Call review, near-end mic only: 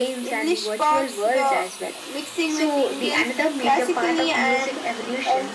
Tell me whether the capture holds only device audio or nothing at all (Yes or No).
Yes